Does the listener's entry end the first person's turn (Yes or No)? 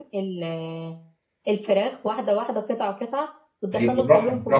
Yes